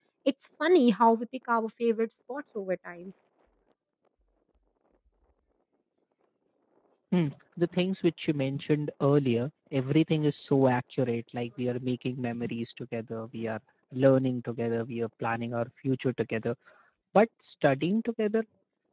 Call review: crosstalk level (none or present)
none